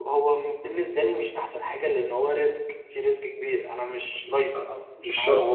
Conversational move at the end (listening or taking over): taking over